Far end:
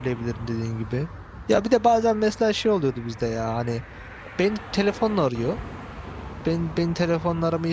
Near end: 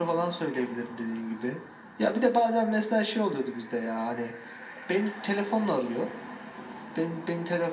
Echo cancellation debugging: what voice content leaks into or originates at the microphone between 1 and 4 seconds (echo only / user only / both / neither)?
echo only